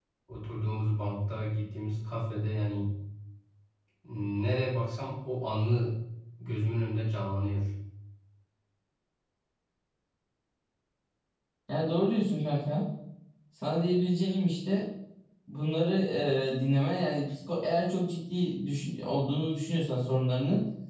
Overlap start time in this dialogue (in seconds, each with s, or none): none